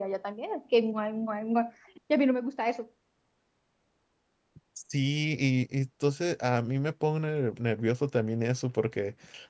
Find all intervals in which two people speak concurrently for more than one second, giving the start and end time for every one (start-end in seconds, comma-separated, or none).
none